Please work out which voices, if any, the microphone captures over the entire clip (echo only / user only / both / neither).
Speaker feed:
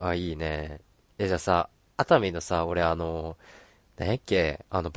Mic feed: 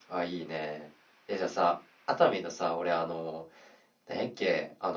echo only